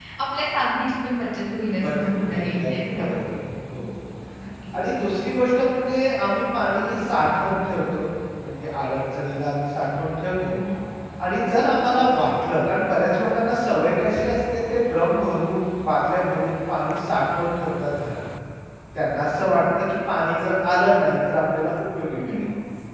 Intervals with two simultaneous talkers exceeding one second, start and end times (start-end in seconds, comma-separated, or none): 1.8-3.2